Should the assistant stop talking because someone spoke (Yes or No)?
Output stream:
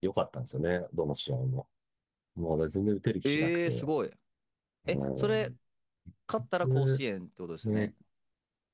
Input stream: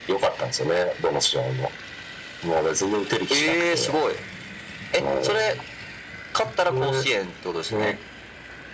No